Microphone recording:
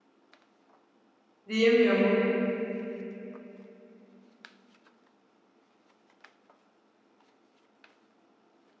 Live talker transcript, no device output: Diyemiyor mu?

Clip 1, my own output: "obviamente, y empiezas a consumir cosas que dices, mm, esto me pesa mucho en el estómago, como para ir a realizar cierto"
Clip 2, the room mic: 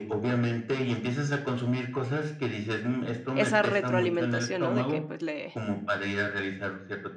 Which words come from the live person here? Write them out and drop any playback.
esa retroalimentación, ¿no? De que, pues, le

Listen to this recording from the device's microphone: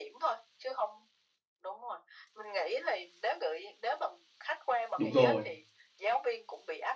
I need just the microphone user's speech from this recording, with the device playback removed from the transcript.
Đúng rồi.

